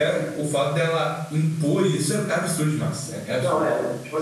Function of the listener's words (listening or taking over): taking over